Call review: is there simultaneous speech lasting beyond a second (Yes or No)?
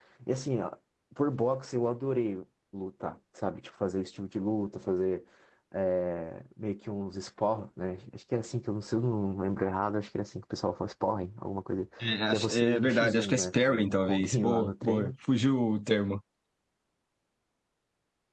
Yes